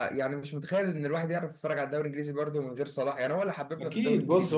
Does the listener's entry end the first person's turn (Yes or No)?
Yes